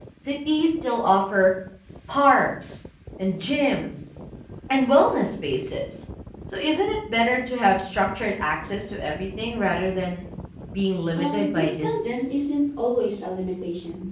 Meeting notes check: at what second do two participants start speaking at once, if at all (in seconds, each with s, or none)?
11.2 s